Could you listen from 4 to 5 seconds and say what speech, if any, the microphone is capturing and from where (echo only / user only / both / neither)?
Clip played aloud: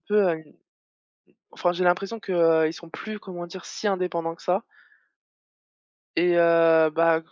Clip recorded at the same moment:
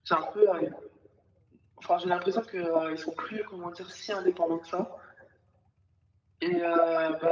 echo only